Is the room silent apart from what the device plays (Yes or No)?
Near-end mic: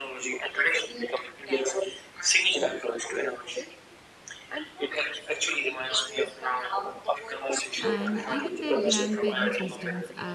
No